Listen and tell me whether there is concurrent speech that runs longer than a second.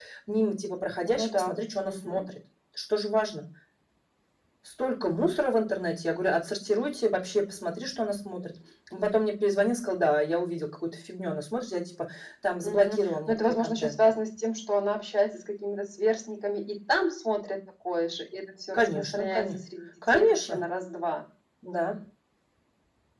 Yes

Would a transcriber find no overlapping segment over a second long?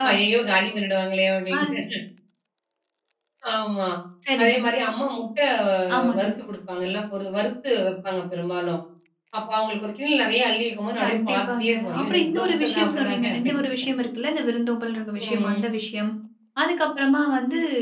No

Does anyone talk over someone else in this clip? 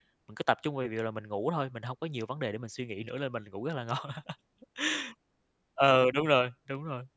No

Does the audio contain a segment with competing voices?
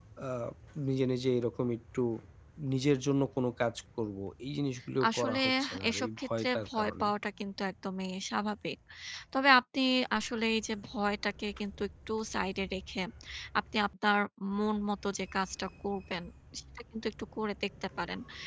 Yes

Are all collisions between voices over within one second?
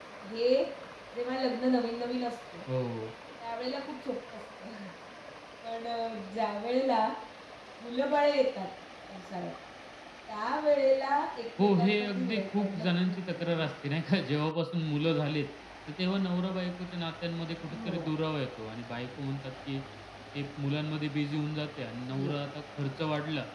No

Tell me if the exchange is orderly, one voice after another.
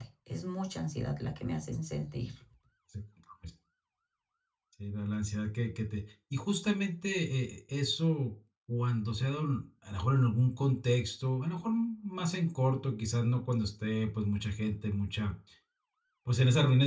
Yes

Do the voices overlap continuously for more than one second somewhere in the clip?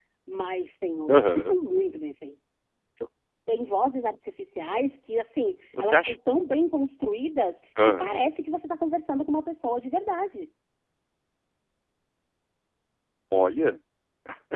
No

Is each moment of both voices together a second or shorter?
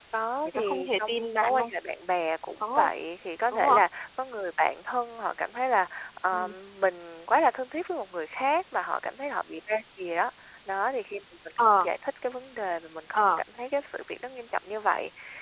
No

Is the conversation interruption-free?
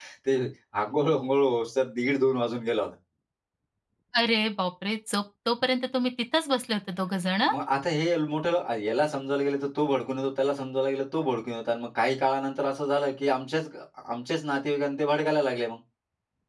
Yes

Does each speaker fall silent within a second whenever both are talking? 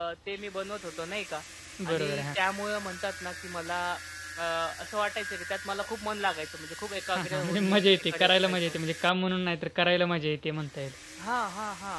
No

